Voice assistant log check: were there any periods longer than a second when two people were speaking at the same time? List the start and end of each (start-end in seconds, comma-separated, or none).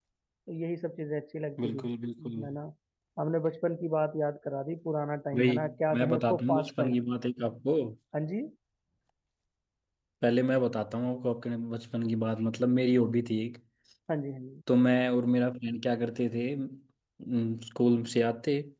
5.4-7.1